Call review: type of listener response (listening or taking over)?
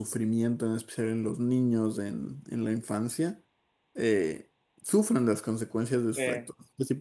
listening